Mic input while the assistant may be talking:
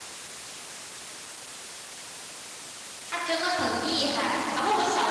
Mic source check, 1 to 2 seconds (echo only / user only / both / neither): neither